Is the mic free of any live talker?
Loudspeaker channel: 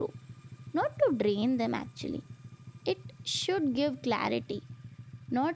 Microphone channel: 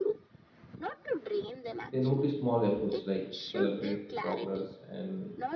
No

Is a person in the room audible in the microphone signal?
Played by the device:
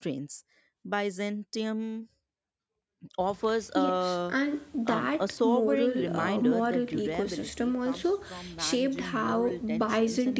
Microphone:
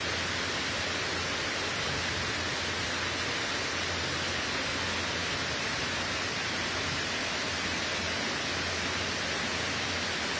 No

